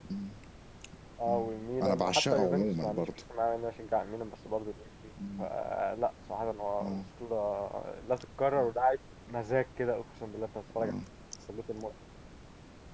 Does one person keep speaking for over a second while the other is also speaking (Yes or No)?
Yes